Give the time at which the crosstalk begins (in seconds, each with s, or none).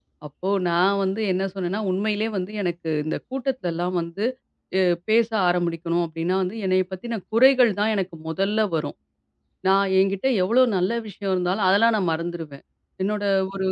none